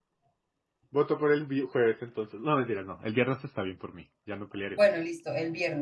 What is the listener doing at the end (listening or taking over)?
taking over